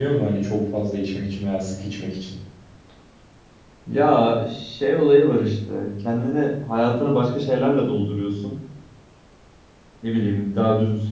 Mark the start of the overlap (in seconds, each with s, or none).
none